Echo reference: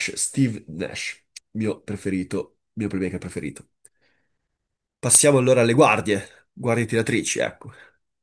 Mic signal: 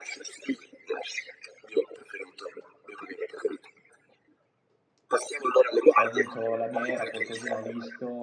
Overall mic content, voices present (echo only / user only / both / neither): both